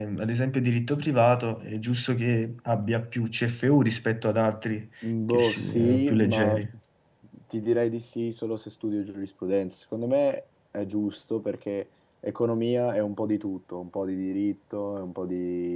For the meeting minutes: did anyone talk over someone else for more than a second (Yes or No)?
Yes